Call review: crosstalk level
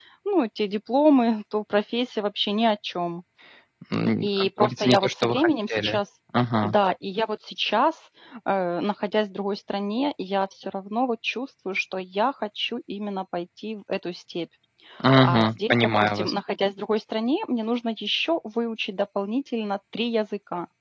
present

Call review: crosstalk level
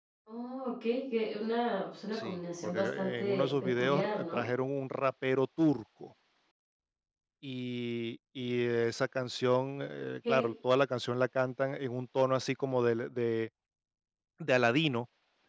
present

